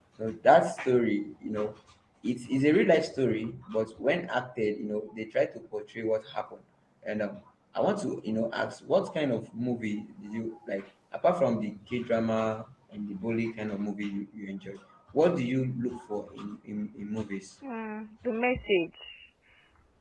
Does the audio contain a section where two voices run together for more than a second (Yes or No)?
No